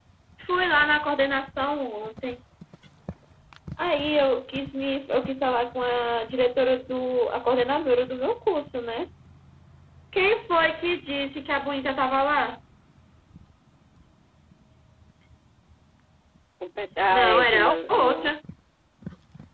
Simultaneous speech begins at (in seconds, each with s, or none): 17.1 s